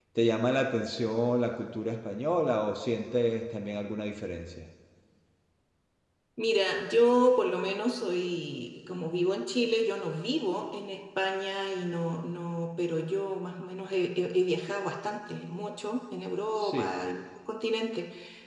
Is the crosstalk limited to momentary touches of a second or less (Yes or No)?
Yes